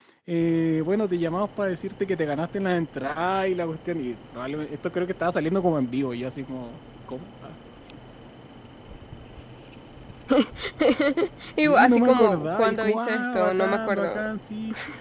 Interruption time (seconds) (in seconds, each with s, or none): 11.6 s